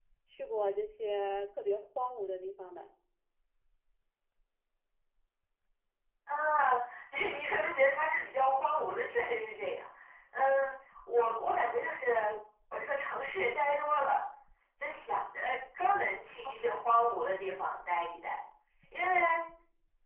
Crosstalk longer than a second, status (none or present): none